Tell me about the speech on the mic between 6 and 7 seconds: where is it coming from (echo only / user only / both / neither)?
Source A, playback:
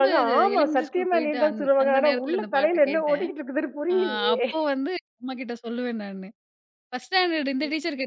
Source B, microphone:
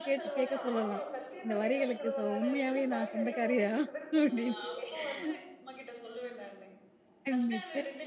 echo only